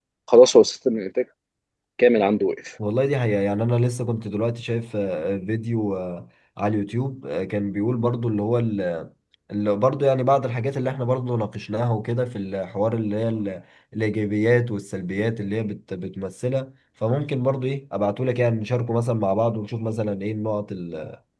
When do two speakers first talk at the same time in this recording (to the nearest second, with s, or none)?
none